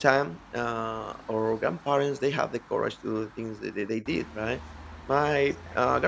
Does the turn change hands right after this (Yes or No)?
No